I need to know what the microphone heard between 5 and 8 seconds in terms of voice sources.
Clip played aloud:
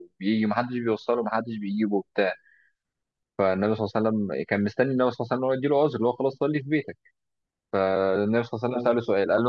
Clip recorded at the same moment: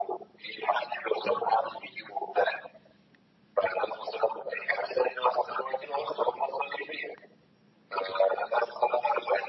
echo only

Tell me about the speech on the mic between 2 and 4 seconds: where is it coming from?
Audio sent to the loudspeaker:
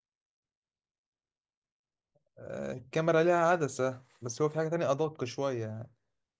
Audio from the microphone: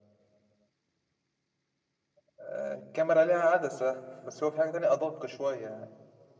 echo only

